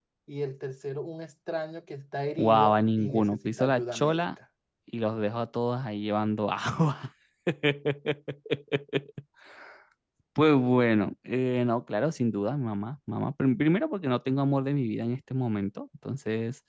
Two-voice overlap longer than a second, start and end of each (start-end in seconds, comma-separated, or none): 2.4-4.3